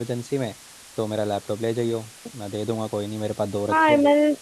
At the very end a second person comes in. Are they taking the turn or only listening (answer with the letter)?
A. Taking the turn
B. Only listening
A